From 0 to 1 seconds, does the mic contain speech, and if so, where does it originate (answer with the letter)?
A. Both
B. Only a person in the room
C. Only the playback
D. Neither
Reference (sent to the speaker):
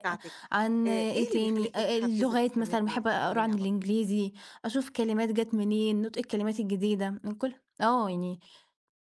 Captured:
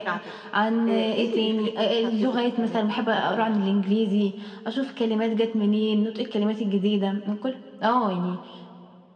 C